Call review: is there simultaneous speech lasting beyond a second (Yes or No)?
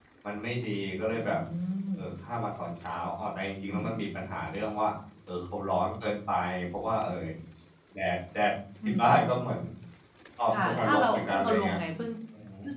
Yes